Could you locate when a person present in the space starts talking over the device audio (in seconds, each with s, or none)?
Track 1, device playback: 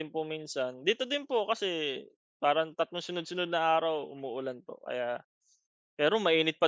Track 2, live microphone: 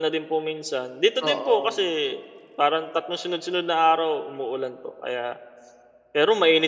1.2 s